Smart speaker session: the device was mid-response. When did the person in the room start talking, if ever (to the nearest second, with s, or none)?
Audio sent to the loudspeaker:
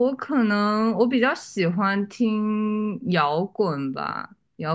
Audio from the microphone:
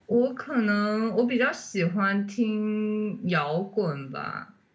none